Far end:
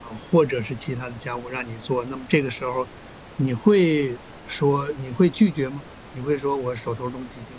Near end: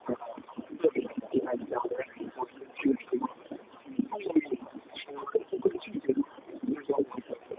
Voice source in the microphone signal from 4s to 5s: echo only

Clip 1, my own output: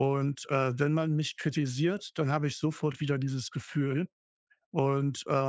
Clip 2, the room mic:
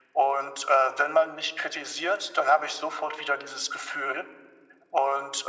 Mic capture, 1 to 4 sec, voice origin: echo only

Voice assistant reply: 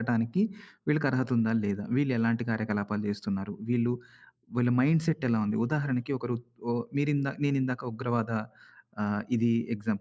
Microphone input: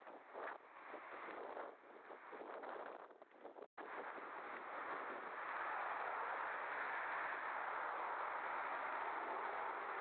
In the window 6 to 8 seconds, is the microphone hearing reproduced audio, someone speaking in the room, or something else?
neither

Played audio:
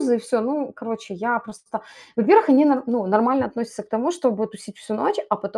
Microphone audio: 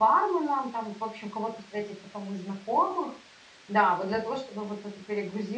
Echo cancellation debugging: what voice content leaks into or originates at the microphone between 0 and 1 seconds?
user only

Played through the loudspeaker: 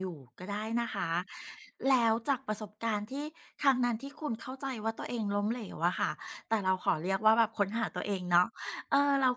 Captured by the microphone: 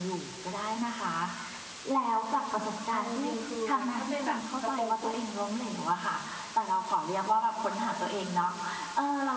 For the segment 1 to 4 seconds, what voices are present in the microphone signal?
both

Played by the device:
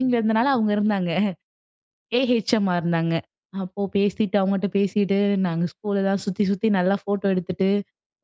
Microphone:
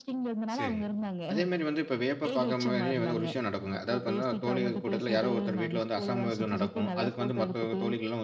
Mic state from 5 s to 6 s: both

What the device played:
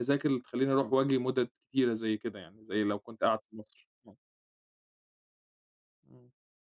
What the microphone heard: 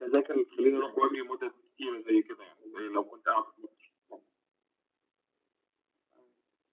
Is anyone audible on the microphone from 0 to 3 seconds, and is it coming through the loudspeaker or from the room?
echo only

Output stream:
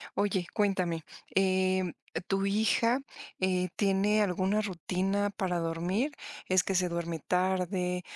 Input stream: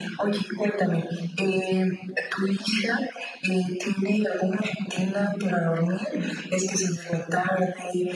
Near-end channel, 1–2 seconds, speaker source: echo only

